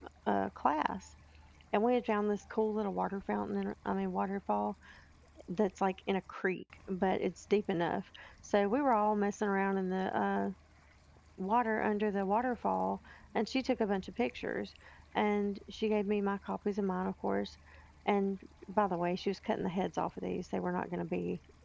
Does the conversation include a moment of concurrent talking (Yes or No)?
No